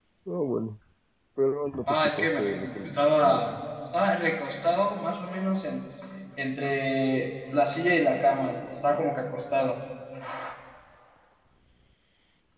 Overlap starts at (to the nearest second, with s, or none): 2 s